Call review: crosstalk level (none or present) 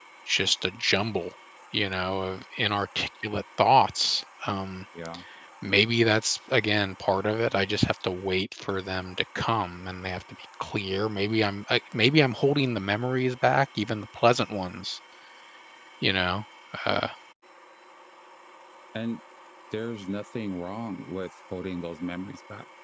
none